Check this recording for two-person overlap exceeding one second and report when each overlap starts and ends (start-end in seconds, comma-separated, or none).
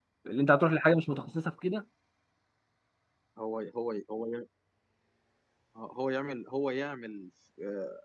none